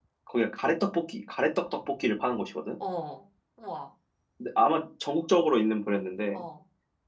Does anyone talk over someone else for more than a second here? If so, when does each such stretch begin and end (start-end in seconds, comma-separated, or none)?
none